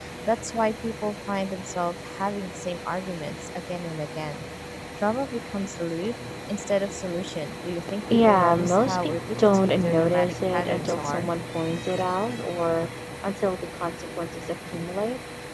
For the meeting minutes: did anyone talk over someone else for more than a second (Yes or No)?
Yes